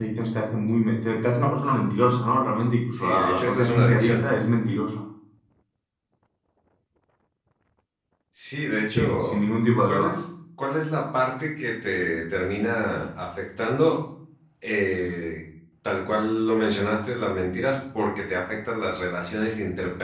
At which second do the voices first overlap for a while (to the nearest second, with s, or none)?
3 s